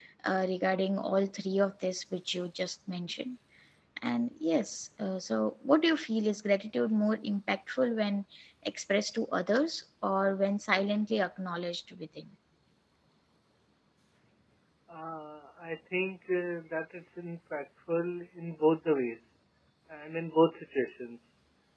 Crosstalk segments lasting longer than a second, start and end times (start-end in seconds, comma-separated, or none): none